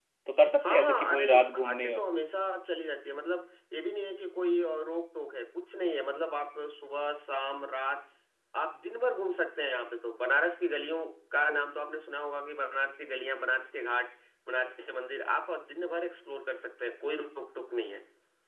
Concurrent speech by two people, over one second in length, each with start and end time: 0.7-2.0

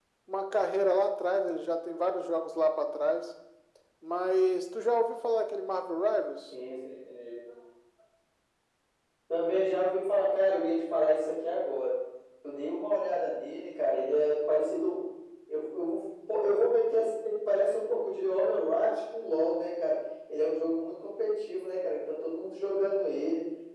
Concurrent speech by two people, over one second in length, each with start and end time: none

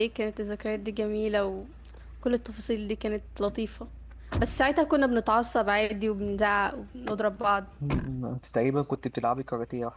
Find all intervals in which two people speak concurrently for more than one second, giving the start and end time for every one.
none

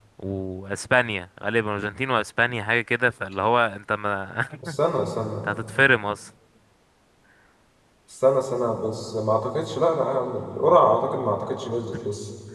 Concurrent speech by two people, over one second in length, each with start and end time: none

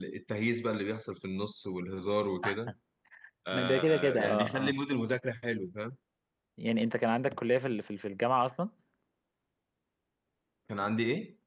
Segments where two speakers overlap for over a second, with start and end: 3.5-4.8

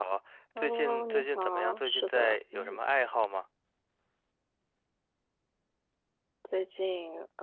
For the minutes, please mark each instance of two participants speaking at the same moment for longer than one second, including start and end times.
0.6-2.8

